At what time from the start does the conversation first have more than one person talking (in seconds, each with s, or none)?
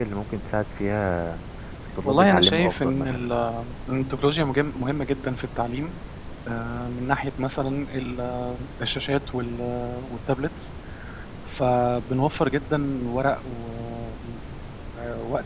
2.0 s